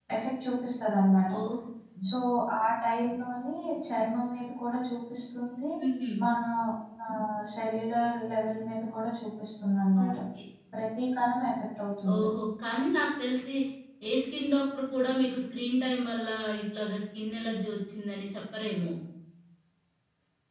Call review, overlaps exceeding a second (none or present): none